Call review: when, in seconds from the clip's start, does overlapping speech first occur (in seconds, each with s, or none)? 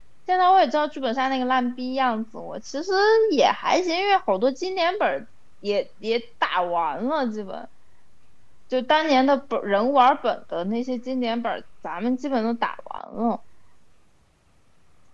none